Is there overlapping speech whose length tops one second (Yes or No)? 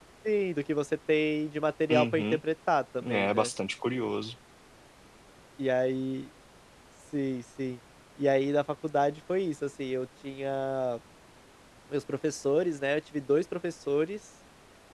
No